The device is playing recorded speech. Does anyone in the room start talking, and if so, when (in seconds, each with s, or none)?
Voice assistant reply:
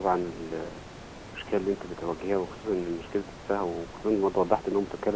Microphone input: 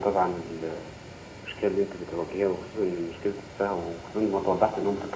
none